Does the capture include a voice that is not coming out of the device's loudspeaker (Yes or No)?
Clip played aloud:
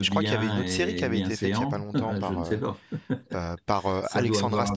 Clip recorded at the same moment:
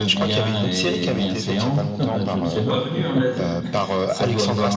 Yes